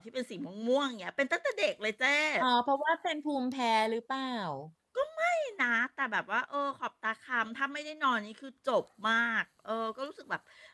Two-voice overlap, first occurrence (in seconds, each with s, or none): none